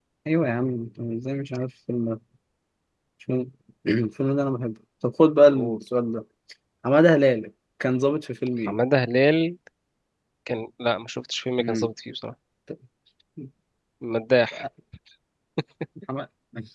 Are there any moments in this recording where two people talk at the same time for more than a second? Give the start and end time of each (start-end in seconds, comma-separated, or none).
none